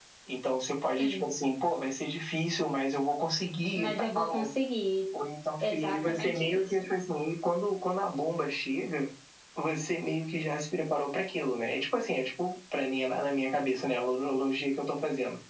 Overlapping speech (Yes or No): Yes